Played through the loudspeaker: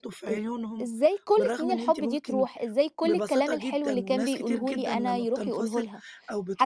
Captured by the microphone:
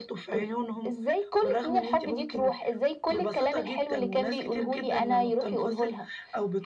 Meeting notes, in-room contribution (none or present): none